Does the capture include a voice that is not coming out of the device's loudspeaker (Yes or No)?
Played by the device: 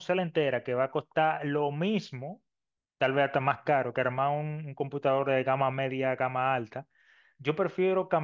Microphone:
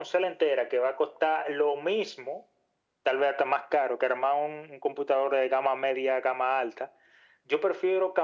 No